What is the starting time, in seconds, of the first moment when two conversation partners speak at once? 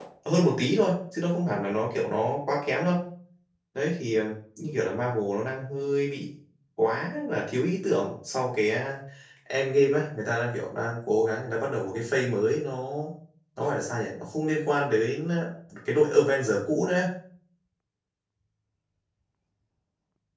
none

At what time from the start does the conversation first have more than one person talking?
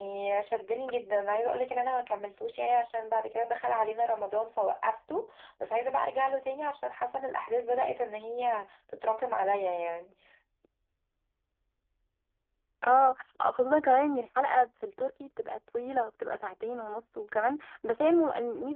none

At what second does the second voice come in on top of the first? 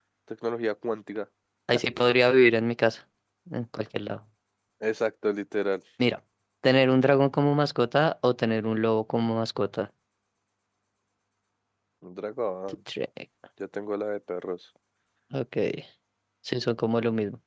none

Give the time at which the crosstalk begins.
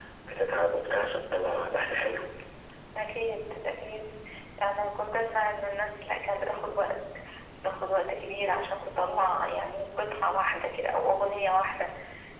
none

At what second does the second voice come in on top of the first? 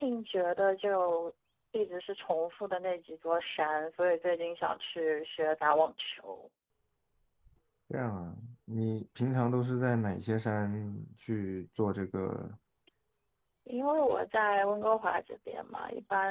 none

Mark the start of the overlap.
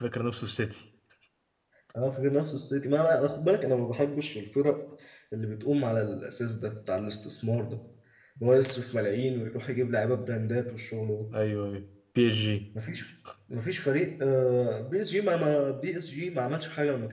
none

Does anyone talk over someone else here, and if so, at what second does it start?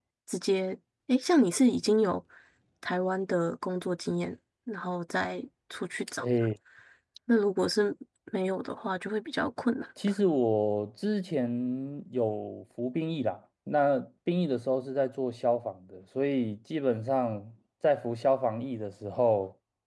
none

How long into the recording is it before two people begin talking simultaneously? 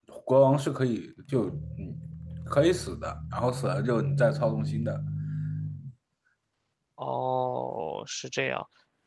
none

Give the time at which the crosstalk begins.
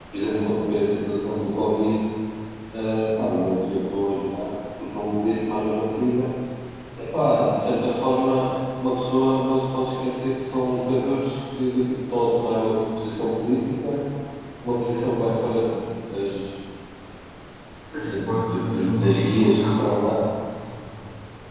18 s

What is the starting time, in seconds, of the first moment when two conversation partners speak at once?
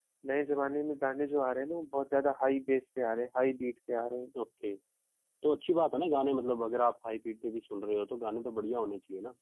none

